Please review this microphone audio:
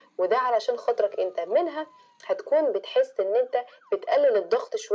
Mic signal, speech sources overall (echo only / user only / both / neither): echo only